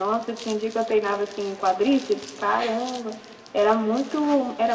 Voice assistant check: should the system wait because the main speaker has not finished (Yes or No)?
Yes